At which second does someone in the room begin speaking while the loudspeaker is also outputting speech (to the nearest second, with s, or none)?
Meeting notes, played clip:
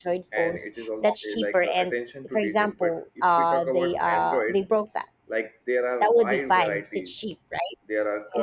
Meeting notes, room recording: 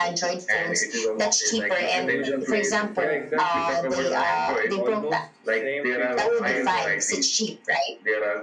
2 s